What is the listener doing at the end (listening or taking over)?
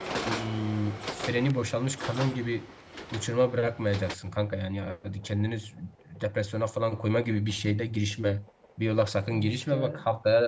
listening